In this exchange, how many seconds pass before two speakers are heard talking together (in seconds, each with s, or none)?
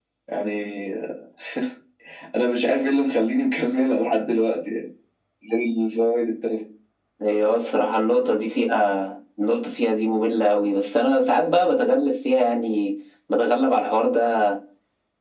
none